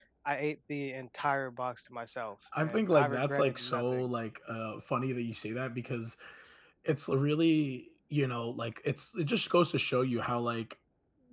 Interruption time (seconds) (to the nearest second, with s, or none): 3 s